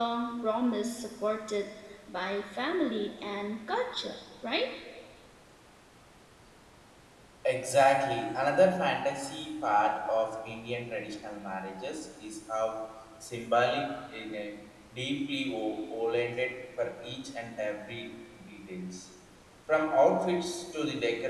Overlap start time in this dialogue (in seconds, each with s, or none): none